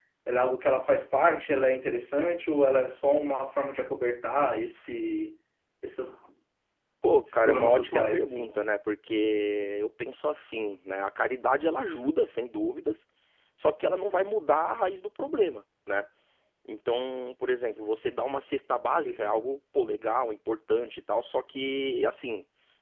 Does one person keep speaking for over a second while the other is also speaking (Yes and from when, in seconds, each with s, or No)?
Yes, from 7.3 s